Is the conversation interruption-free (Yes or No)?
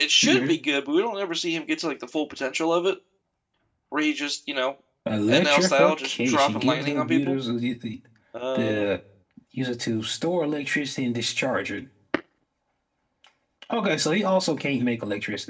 No